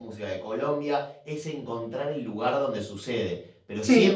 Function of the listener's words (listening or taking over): listening